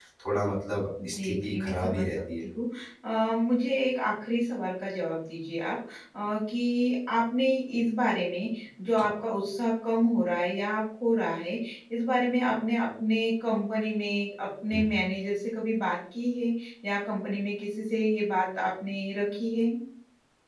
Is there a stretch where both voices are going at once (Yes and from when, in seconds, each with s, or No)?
Yes, from 1.1 s